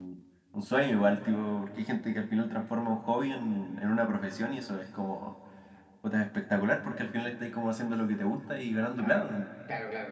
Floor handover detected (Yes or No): Yes